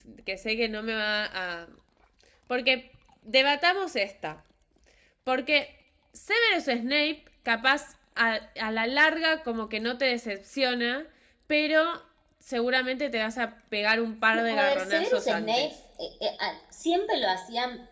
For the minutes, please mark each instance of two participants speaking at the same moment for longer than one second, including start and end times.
14.3-15.7

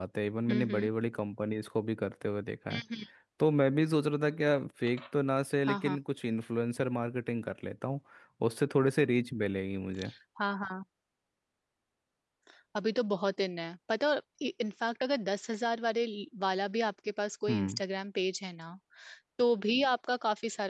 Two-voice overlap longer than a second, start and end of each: none

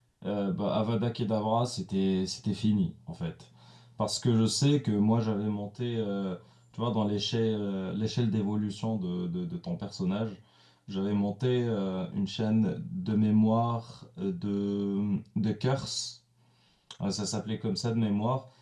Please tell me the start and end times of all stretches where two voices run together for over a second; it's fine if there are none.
none

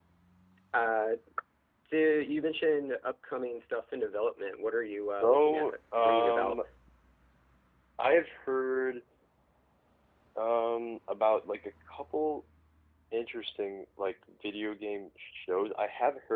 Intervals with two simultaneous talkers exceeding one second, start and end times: 5.2-6.6

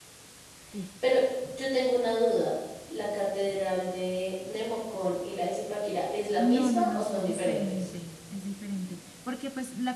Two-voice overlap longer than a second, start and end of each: 6.4-7.9

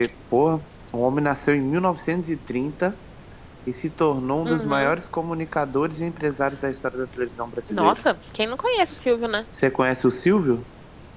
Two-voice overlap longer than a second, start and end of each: none

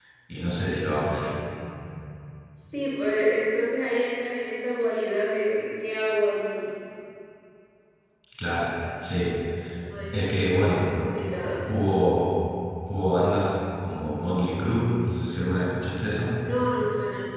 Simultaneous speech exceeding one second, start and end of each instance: none

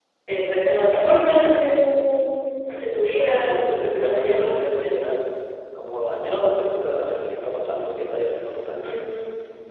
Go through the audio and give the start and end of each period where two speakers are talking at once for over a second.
3.1-4.6

